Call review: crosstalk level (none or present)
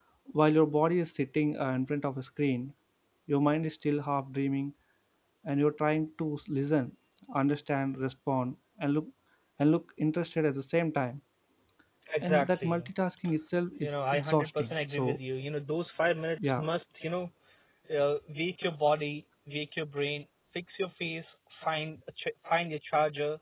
present